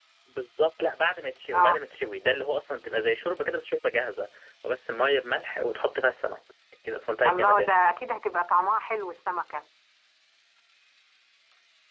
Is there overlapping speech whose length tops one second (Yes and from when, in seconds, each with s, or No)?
No